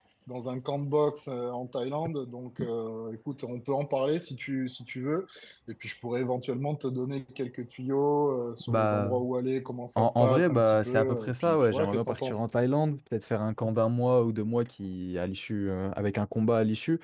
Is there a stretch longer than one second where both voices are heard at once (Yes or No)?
Yes